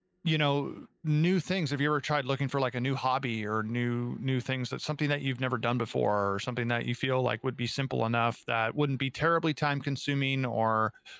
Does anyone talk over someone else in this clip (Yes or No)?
No